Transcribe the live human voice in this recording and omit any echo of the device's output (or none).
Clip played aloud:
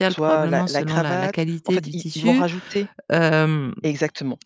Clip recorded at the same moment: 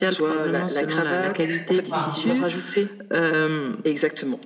Oh c'est l'accessoire en fait.